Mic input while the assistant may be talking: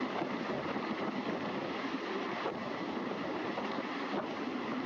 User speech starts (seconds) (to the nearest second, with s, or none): none